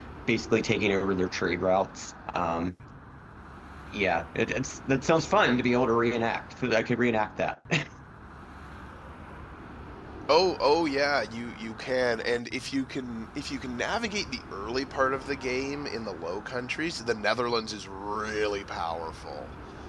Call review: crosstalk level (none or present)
none